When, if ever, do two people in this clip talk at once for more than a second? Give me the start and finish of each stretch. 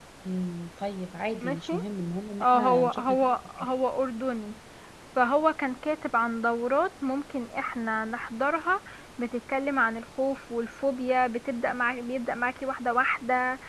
2.4-3.7

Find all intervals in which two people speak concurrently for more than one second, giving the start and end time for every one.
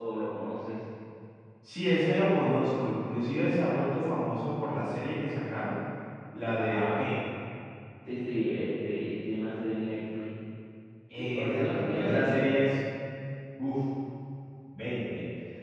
11.1-12.7

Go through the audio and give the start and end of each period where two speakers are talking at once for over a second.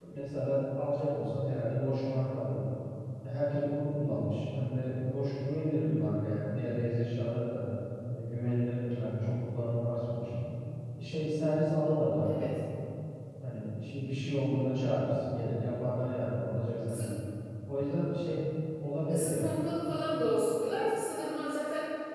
none

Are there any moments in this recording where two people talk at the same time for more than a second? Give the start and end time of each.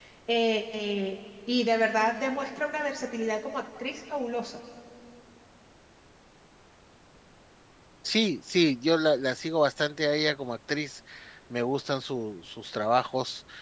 none

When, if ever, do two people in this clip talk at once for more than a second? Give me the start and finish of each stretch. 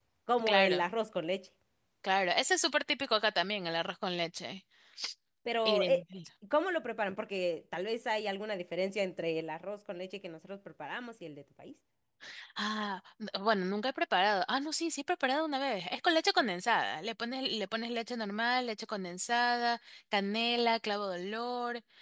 none

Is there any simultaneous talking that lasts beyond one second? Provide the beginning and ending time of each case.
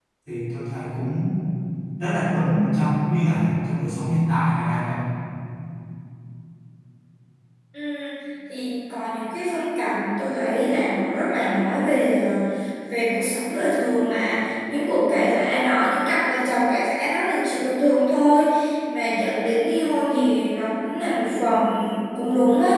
none

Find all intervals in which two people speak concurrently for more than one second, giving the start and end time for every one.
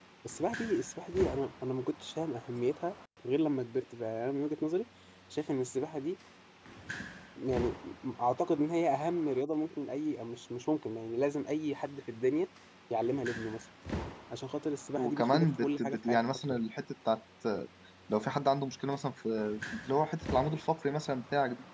15.0-16.6

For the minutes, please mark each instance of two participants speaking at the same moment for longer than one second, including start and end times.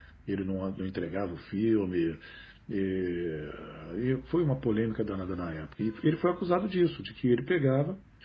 none

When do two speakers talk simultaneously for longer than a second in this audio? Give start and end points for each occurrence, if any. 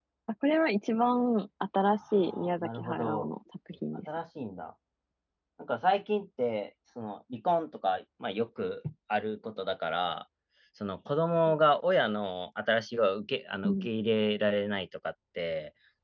2.1-3.3

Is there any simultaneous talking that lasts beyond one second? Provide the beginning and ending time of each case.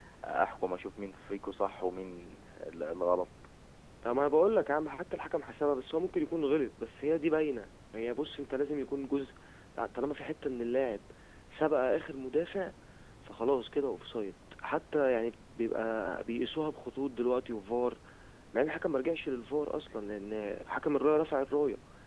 none

